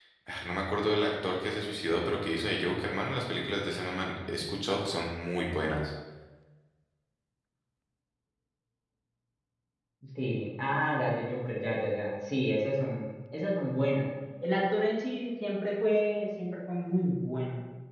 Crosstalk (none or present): none